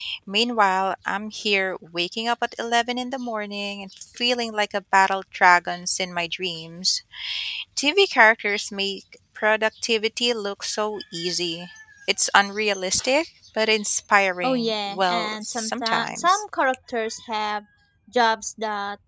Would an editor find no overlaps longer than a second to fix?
No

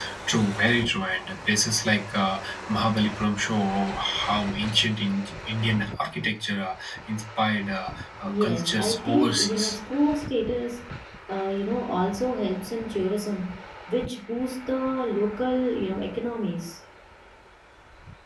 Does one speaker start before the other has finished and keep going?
Yes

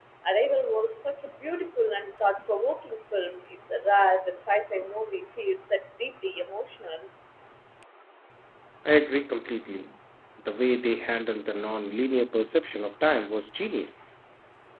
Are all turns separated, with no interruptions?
Yes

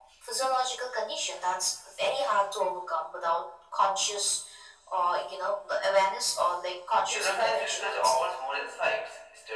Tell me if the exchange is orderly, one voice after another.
No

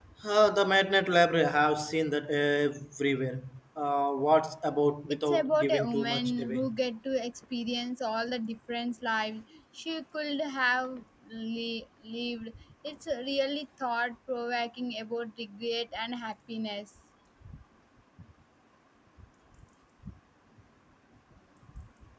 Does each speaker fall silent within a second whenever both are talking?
No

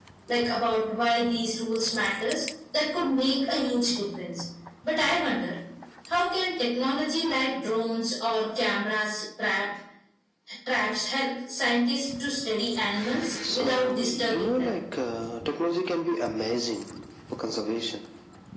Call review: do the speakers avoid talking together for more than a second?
No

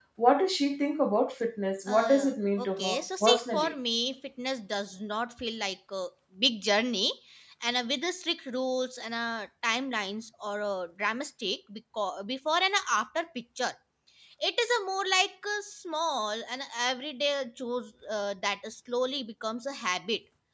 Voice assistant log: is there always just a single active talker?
No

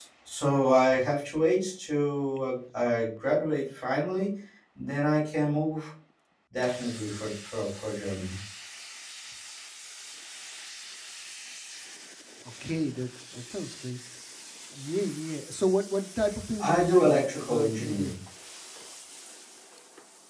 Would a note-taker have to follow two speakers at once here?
Yes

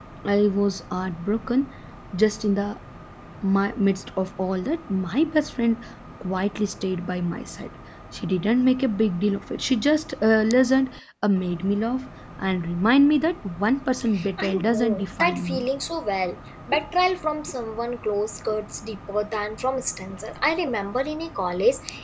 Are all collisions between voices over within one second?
No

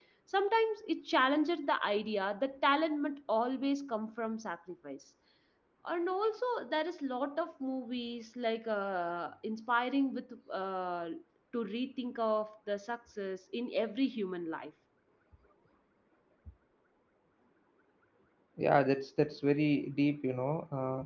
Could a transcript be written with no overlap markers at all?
Yes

